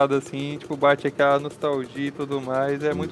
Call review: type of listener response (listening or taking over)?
taking over